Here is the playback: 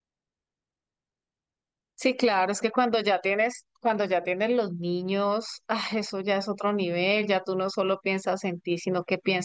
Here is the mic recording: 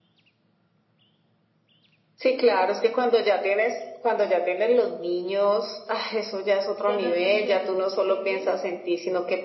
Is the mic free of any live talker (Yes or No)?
No